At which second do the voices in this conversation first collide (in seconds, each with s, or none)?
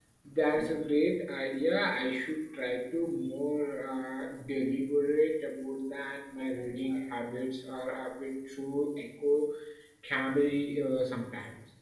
none